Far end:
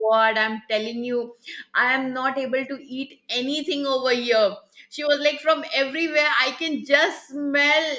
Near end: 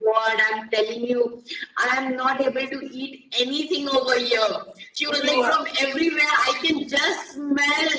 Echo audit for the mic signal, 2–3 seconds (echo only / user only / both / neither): echo only